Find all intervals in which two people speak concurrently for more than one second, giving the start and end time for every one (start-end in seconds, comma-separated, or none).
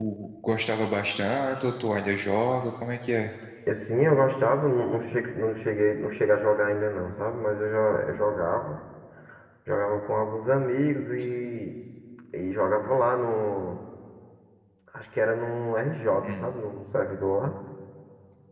none